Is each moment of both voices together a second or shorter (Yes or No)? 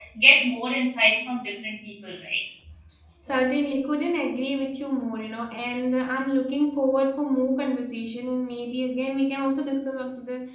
Yes